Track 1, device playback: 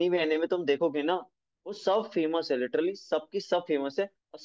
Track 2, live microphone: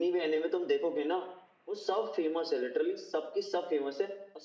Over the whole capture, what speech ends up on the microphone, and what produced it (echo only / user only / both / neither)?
echo only